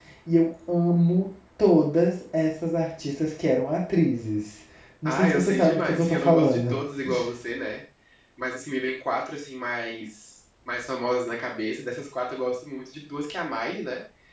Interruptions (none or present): present